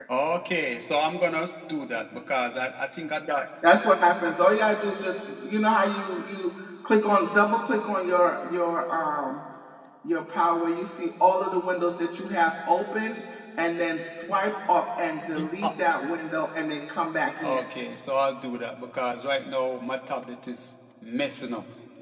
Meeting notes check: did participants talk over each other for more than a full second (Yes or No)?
No